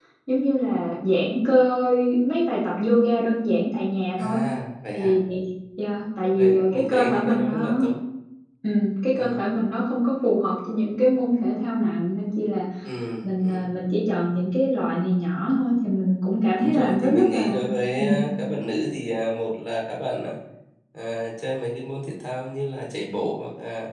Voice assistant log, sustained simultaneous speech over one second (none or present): present